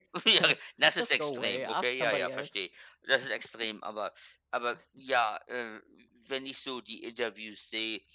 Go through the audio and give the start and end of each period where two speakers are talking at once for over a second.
1.0-2.5

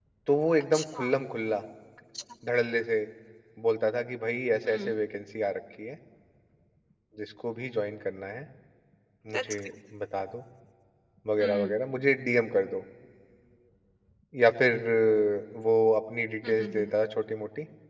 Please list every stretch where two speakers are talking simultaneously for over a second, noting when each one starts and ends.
none

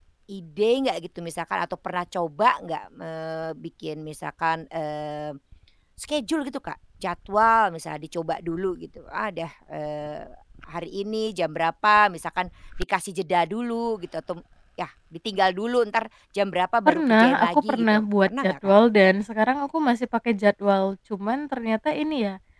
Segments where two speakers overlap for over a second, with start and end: 16.9-18.7

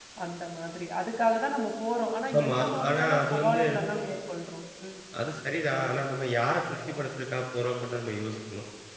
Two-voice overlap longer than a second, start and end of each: 2.4-3.6

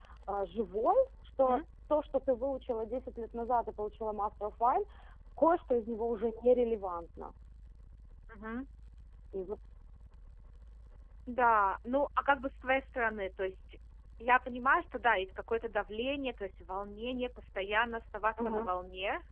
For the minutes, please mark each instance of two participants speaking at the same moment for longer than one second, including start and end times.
none

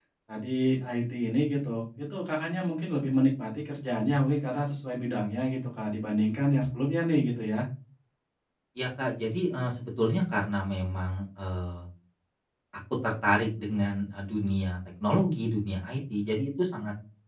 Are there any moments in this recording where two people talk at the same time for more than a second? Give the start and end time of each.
none

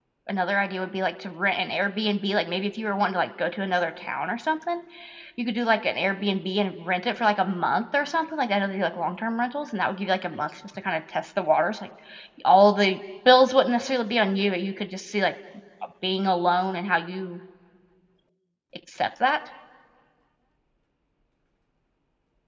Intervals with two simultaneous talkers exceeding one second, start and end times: none

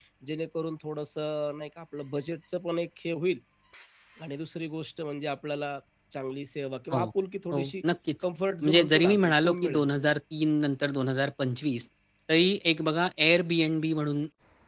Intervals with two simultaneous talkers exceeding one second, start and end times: 8.6-9.9

